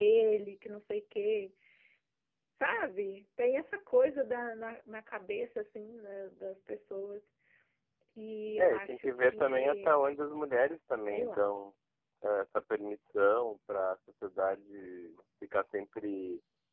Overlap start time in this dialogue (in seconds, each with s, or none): 8.6 s